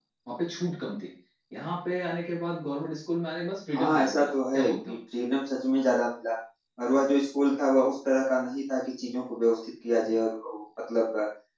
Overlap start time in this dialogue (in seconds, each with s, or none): 3.7 s